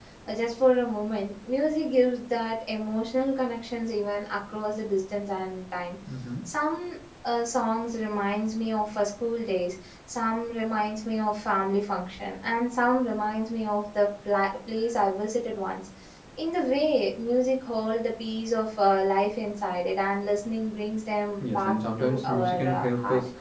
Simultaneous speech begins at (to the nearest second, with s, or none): 21 s